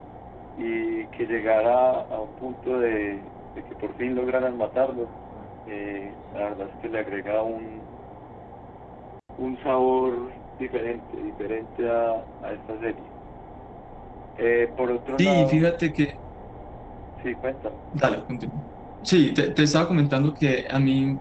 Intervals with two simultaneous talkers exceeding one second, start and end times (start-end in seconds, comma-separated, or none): none